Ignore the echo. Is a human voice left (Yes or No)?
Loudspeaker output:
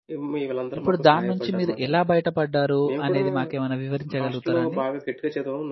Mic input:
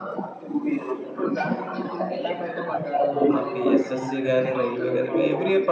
Yes